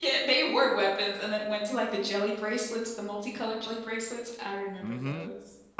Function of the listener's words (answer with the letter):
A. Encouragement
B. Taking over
B